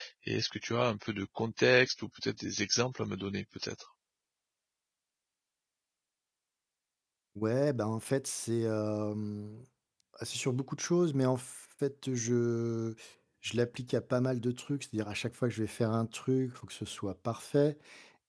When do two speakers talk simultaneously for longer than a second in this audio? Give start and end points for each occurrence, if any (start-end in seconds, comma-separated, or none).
none